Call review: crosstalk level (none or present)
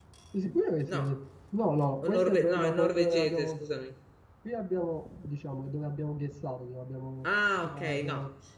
present